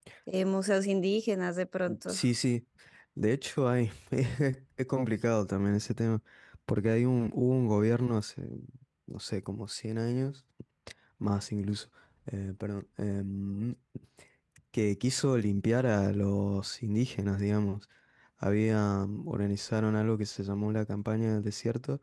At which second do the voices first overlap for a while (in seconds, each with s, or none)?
none